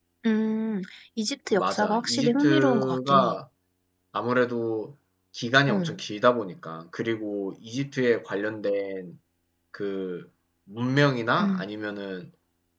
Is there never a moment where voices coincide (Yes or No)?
No